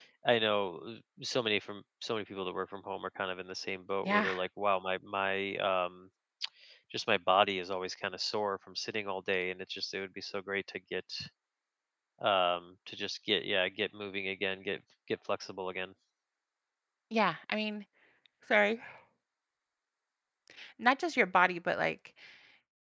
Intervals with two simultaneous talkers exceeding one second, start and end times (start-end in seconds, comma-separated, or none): none